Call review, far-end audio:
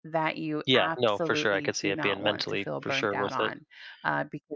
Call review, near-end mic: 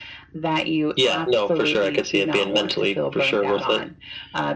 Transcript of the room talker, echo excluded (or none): none